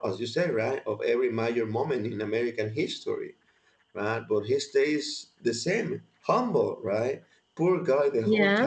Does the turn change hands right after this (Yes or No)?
No